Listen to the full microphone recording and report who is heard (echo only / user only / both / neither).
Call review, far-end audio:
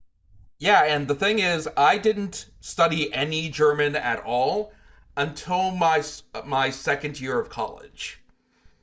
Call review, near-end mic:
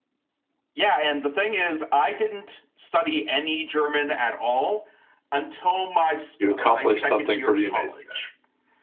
both